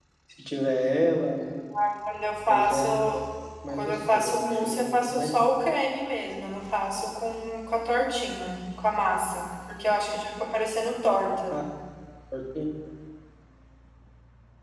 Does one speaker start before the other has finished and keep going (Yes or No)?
Yes